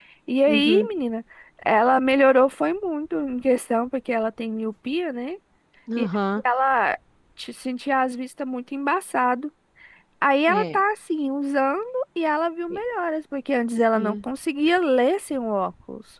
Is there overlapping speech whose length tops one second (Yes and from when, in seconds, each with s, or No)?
No